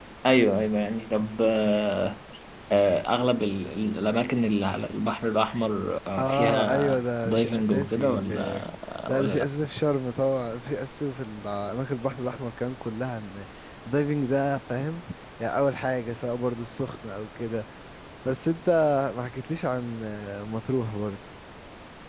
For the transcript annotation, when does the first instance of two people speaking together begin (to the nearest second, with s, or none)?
6 s